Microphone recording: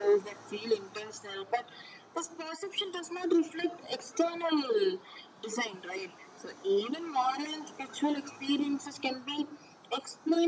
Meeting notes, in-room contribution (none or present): none